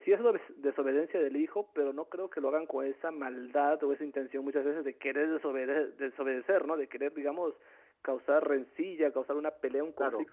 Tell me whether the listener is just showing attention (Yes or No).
Yes